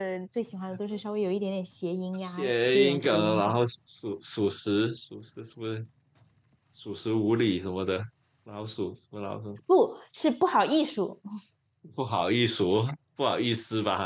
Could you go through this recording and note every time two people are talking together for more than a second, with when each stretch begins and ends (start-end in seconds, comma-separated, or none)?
2.2-3.6